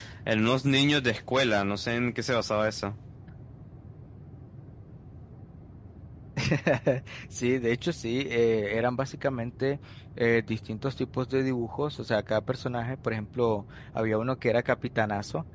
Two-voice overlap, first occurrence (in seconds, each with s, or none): none